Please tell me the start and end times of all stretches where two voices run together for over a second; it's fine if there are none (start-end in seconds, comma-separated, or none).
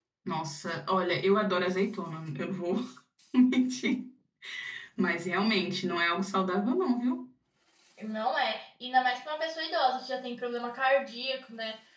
none